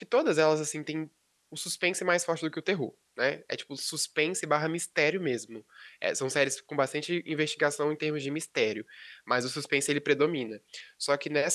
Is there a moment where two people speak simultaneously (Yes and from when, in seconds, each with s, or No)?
No